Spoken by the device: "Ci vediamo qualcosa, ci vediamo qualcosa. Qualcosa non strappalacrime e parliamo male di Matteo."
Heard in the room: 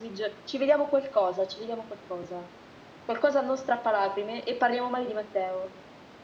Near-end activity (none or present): none